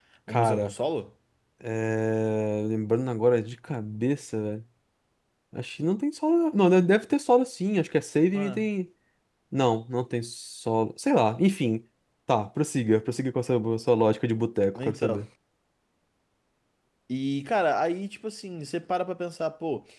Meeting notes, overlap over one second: none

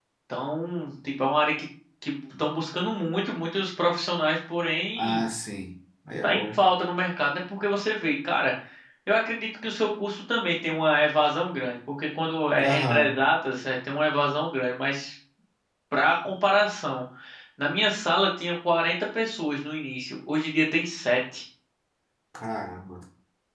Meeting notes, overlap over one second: none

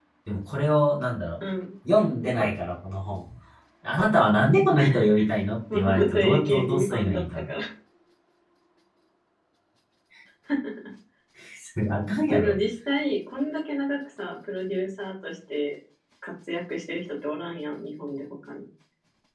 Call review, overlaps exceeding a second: present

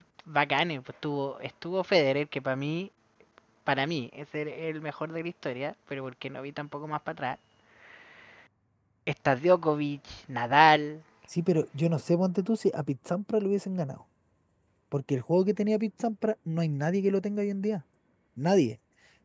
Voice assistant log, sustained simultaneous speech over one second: none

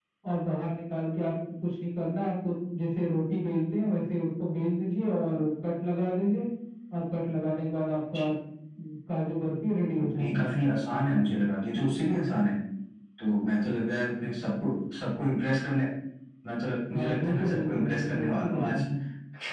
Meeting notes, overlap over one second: present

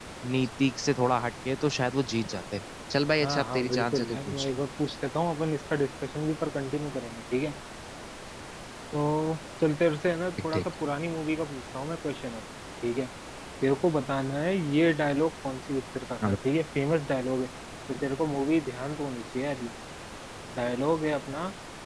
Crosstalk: present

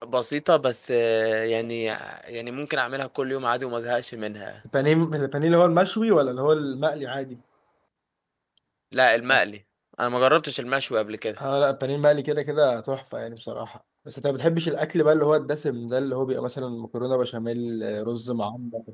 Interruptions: none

